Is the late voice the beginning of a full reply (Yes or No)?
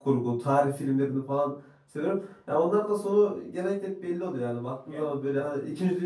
No